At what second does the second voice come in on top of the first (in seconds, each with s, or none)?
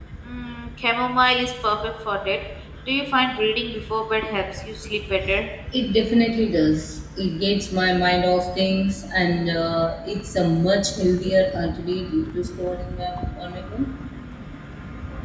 none